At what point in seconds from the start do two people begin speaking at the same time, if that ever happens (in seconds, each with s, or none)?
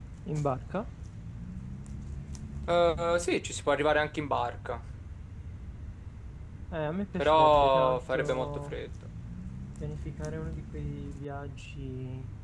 7.2 s